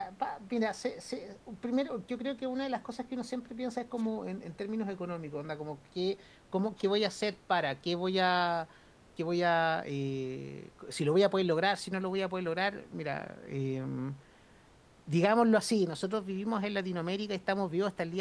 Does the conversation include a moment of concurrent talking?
No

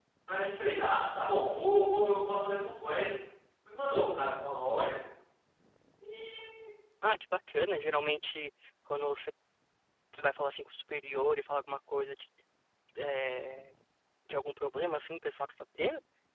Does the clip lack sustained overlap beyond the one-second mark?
Yes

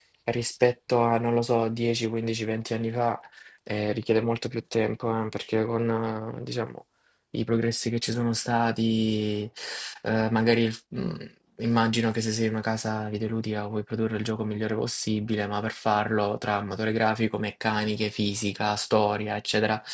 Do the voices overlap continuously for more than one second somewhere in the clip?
No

